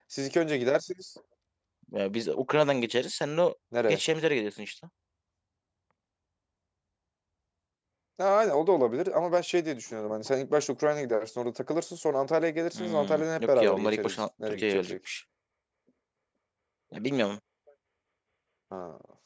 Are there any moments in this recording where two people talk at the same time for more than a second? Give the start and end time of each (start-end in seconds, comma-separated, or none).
12.7-14.9